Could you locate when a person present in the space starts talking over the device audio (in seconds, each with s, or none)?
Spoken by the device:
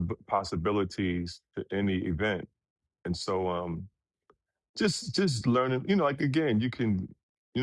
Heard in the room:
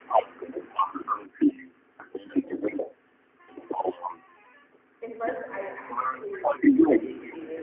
5.0 s